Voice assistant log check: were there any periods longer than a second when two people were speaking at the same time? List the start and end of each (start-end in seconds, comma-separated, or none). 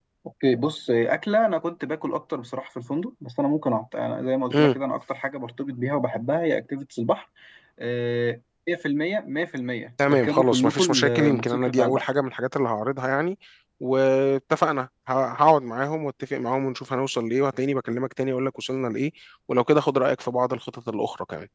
10.1-12.1